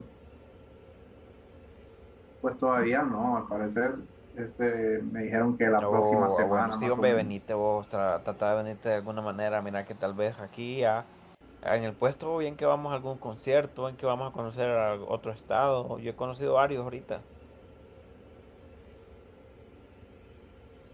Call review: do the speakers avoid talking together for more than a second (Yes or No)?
No